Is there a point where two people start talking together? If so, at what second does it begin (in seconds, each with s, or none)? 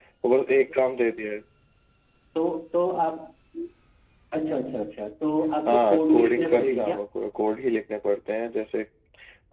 5.7 s